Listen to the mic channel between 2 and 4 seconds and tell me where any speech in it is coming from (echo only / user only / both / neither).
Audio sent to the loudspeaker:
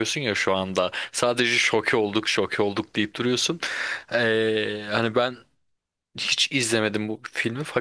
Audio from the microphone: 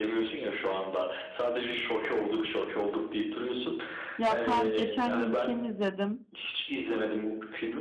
echo only